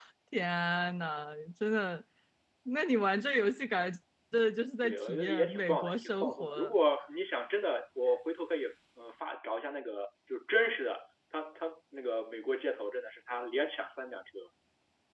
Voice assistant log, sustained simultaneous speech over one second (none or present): present